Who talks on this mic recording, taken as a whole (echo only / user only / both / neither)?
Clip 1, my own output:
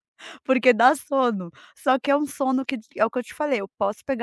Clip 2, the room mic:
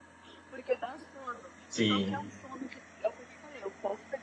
both